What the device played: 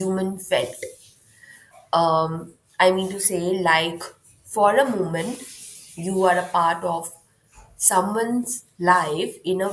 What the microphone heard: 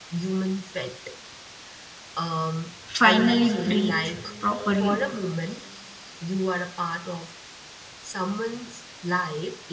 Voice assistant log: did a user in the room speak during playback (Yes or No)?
Yes